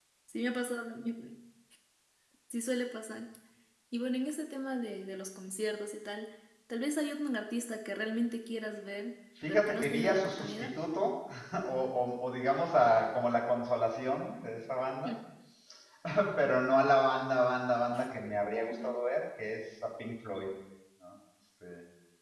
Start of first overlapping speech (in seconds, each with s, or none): 9.4 s